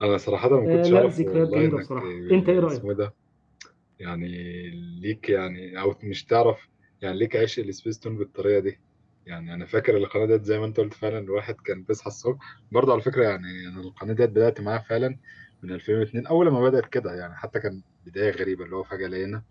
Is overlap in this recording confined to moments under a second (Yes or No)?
No